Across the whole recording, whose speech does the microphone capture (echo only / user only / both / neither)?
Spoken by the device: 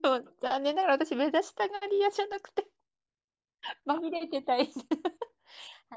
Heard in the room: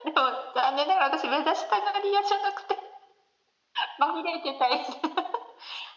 echo only